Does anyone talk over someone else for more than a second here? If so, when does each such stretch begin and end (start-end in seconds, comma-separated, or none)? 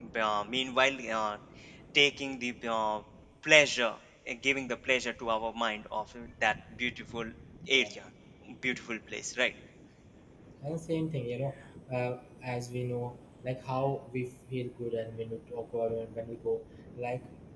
none